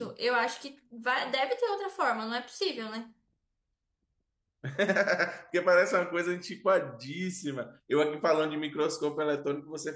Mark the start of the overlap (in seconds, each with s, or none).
none